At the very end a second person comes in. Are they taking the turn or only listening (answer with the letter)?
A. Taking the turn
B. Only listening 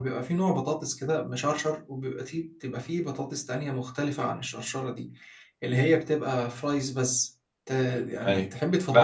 A